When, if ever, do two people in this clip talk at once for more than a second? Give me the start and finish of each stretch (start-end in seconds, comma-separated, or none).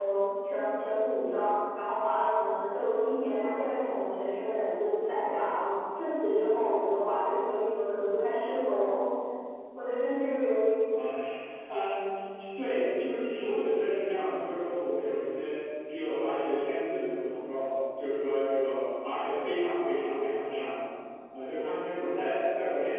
none